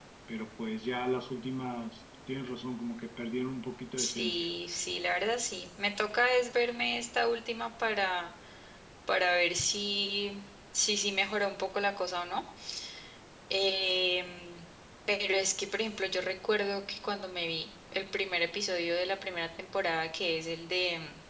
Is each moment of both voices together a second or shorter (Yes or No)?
Yes